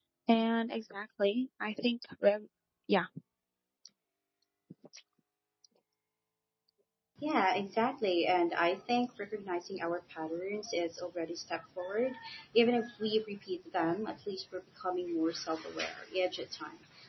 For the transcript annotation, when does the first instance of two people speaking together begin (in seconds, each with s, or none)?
none